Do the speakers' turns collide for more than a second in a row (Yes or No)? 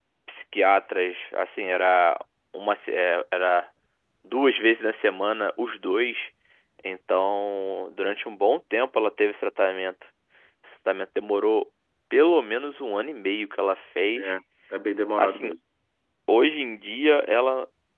No